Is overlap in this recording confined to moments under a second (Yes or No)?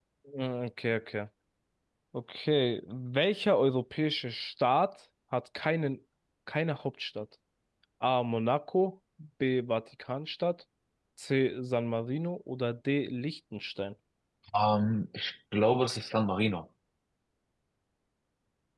Yes